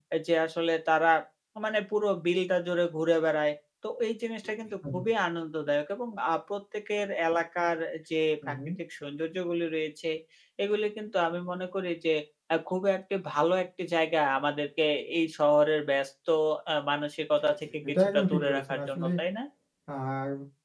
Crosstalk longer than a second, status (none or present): present